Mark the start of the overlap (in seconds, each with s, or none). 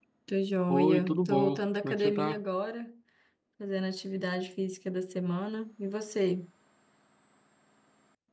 0.7 s